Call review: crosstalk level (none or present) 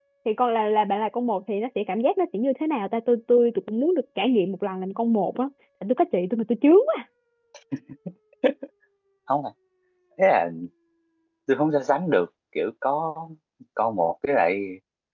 none